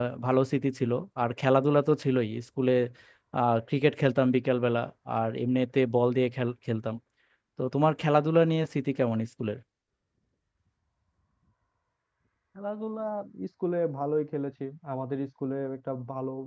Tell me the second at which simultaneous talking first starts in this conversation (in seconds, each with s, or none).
none